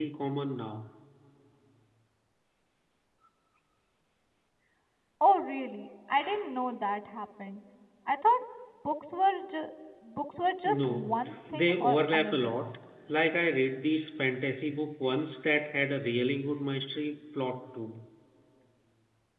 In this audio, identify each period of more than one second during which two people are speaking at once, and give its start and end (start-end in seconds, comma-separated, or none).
10.7-12.6